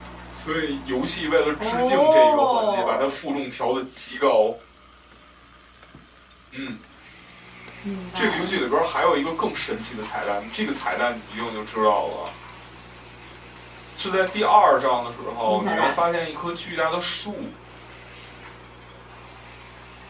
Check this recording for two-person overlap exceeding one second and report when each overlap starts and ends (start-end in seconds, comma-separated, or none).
1.6-3.1